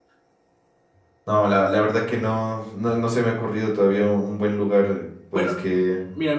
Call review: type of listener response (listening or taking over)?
taking over